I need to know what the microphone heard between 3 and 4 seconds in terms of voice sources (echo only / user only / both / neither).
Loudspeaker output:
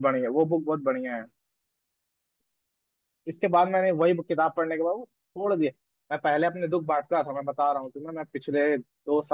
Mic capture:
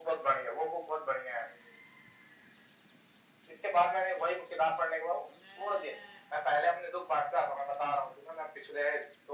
echo only